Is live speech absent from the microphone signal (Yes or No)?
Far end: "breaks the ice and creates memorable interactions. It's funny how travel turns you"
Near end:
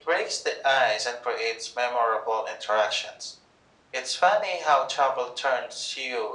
Yes